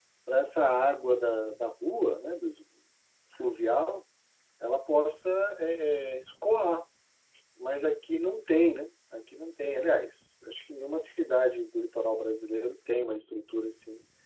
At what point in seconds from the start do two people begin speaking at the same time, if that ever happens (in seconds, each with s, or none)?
none